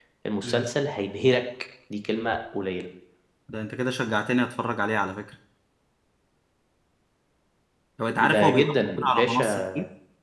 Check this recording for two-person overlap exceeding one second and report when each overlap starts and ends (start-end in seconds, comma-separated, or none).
8.2-9.7